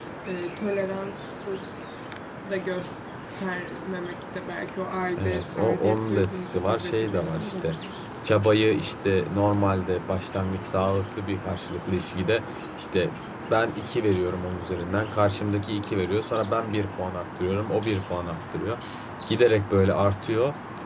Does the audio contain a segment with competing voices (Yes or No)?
Yes